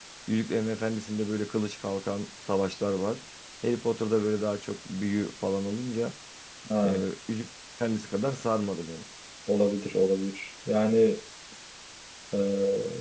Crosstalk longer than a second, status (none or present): none